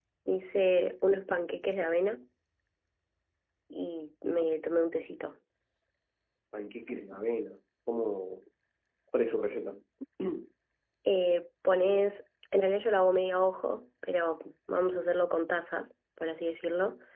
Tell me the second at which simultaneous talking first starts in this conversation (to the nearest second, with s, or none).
none